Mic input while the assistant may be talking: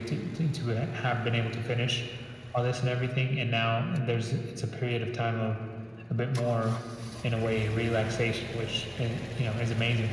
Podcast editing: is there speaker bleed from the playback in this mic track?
Yes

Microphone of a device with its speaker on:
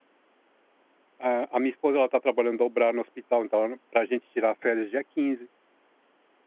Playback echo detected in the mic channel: No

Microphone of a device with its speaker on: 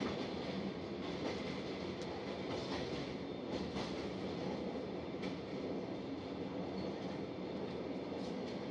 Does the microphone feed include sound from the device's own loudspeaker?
No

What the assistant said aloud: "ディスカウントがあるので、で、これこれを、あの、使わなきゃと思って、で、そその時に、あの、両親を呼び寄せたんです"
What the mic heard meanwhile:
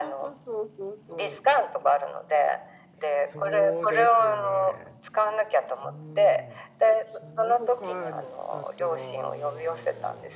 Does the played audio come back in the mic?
Yes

